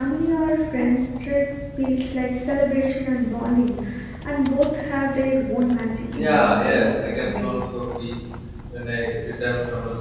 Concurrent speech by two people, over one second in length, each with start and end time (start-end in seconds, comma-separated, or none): 6.1-7.5